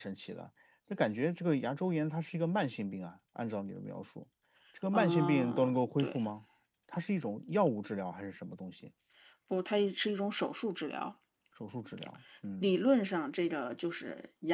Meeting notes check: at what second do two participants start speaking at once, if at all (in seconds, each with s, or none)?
4.9 s